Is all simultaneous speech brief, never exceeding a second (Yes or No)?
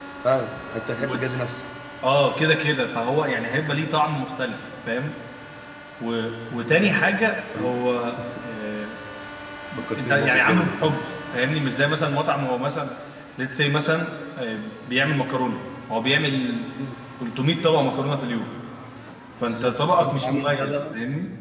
No